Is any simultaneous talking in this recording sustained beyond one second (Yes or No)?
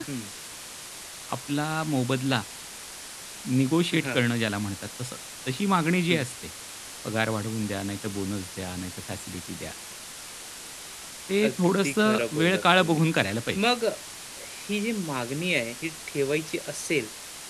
Yes